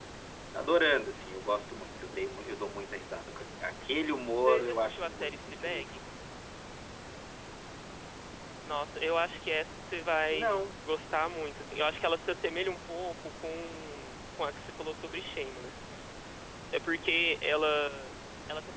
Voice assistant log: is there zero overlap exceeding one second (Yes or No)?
No